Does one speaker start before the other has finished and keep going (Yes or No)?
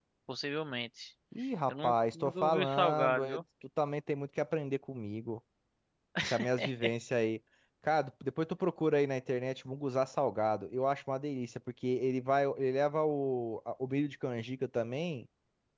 Yes